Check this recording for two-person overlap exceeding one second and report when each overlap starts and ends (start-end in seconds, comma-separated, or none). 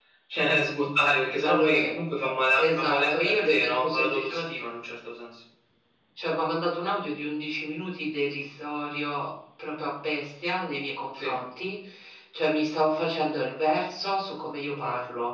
2.6-4.5